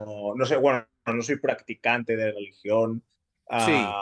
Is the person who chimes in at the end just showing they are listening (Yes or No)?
Yes